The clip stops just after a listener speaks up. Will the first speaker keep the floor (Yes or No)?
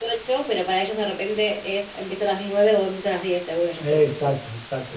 No